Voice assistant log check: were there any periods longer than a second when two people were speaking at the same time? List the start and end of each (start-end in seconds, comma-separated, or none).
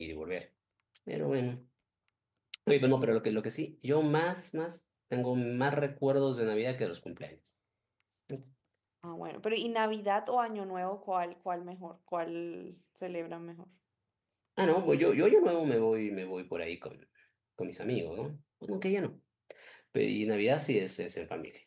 none